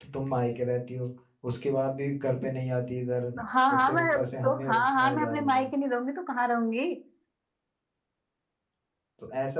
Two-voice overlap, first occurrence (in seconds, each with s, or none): 3.7 s